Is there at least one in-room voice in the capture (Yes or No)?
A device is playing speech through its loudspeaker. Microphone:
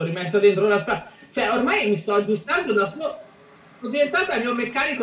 No